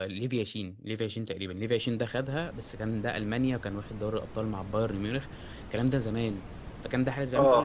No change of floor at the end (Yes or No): Yes